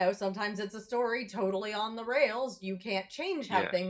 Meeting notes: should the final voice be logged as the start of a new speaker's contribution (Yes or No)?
No